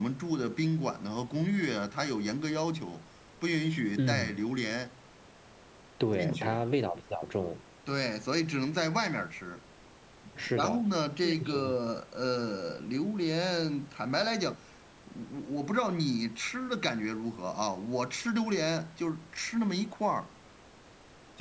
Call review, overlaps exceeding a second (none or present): none